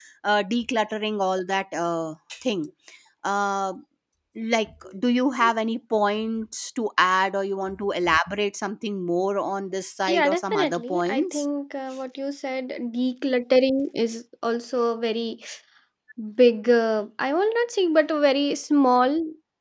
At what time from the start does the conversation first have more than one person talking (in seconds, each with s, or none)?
10.1 s